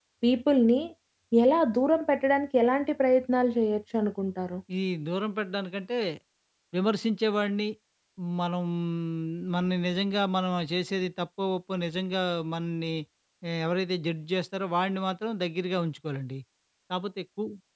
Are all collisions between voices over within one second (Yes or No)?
Yes